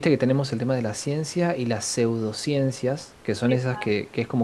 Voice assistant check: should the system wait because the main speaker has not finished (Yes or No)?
Yes